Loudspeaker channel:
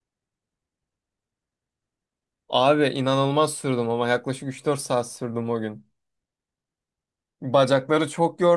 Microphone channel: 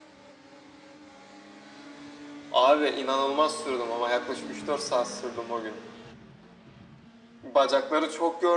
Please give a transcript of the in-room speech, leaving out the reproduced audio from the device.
none

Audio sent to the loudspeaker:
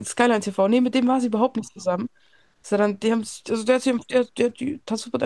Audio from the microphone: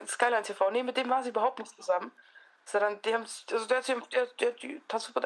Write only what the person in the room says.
none

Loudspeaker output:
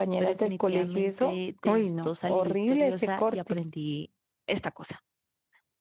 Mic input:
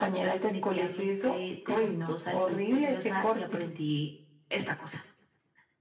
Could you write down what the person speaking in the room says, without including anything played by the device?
none

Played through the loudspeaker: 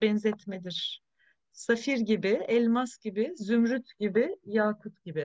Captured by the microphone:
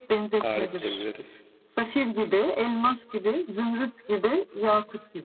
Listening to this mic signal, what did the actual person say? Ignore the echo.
Tarih diyebiliriz.

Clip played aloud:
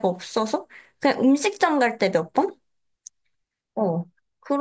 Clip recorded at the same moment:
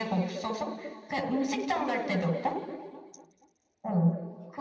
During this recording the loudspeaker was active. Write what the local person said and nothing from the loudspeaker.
none

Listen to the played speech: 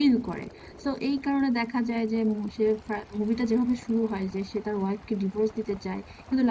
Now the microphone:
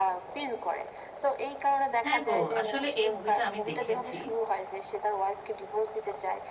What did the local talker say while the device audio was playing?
হ্যাঁ গো আসলে এই মুভিটা আমি দেখেছি

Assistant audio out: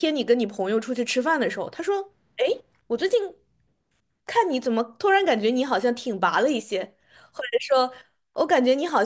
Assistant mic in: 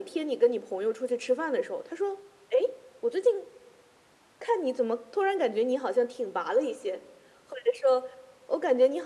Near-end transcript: none

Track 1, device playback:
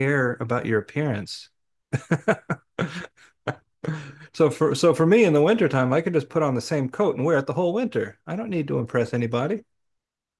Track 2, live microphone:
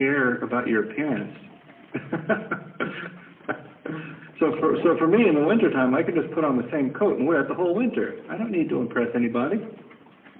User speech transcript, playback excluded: All right.

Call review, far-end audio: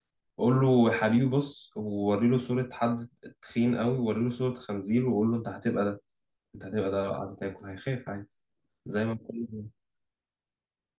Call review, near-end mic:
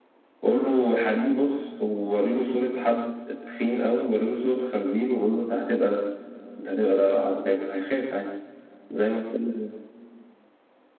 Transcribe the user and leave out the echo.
none

